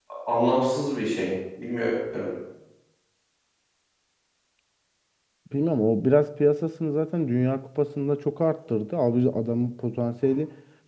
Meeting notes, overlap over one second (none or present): none